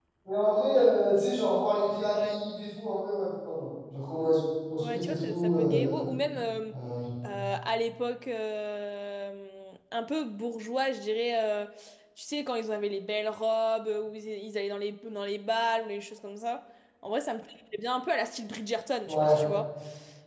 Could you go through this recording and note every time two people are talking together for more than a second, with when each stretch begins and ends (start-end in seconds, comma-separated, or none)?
4.8-6.0